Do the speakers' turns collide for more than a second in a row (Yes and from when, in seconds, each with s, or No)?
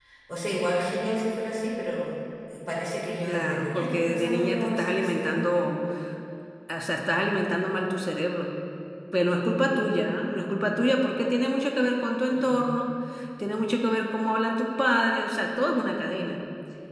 Yes, from 3.3 s